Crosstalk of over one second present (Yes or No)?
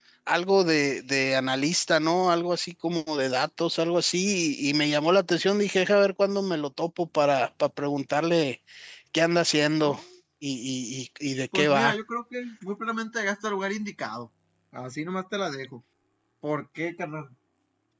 No